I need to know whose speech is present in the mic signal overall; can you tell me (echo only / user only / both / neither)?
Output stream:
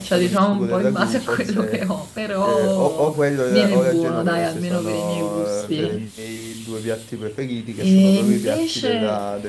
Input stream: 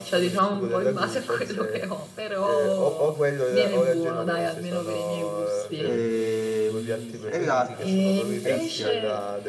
both